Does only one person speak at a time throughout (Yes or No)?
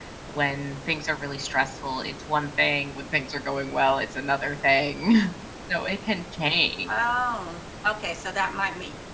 Yes